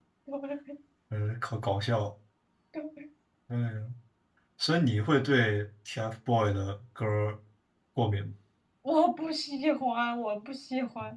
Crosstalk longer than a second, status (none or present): none